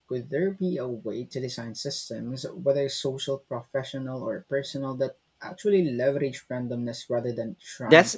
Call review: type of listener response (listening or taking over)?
taking over